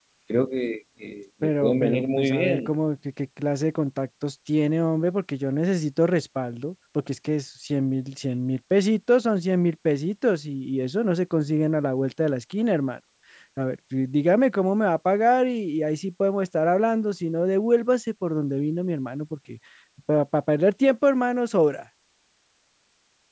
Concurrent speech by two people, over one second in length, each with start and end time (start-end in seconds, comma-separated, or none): 1.4-2.7